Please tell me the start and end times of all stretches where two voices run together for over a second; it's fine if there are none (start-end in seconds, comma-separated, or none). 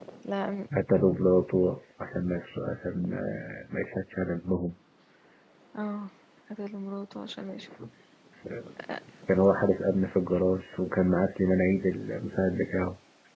none